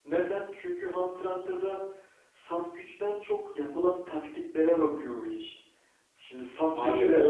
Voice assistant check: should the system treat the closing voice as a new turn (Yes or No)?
No